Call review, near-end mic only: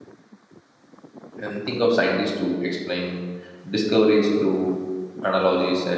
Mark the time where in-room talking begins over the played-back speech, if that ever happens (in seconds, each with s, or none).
1.4 s